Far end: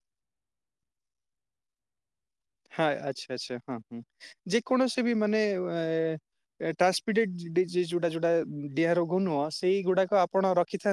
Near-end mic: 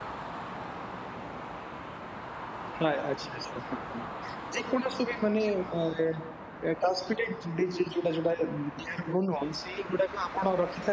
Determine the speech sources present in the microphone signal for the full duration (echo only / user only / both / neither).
echo only